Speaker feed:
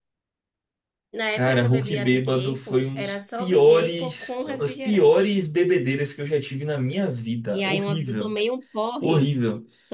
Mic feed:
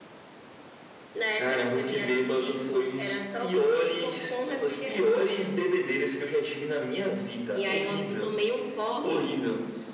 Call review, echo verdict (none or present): present